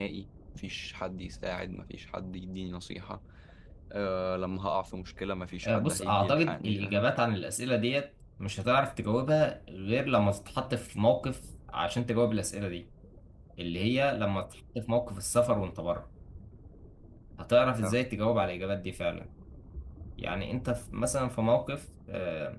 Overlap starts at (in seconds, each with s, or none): 5.6 s